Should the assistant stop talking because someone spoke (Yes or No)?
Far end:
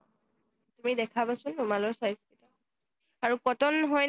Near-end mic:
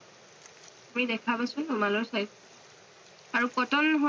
No